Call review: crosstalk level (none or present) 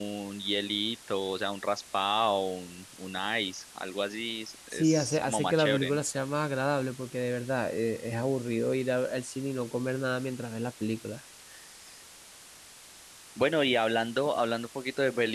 present